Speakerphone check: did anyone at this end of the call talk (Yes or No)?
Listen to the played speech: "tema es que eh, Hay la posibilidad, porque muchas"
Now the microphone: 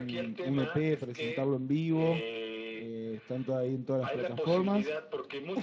Yes